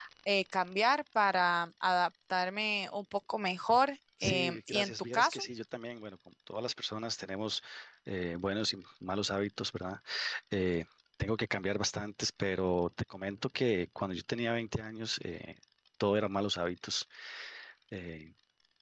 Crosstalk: present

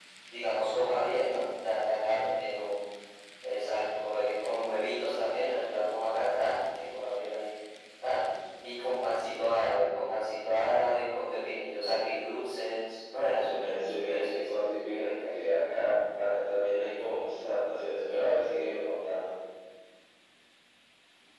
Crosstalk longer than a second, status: present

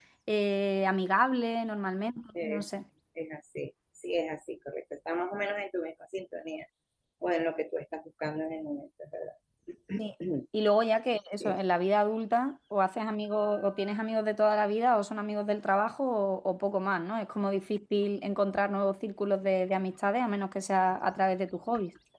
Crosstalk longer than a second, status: none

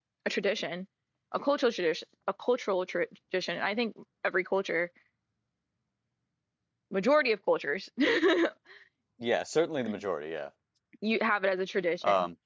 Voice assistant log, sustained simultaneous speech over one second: none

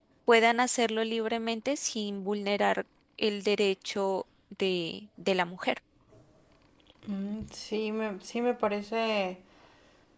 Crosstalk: none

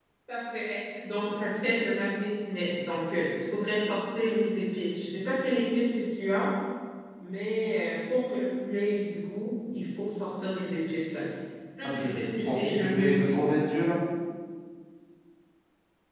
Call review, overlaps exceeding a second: present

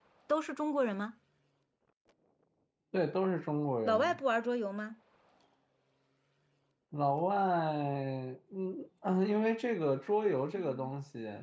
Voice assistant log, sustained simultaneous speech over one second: none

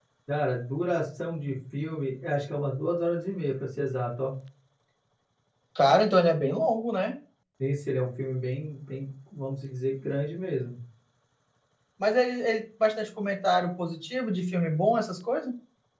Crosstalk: none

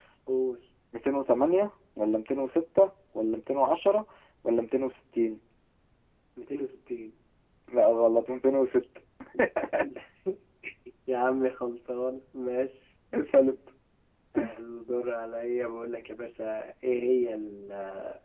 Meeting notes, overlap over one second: none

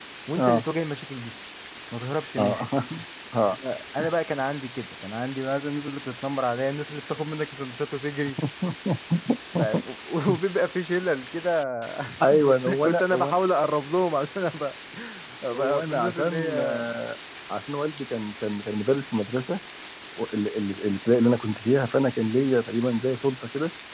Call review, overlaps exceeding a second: present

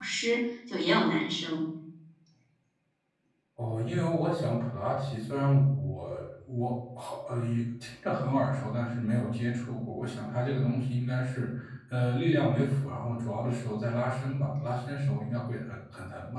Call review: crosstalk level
none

